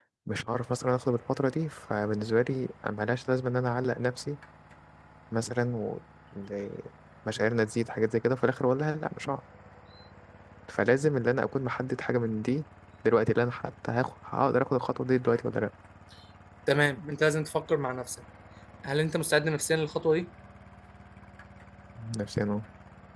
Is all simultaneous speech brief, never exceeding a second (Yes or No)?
Yes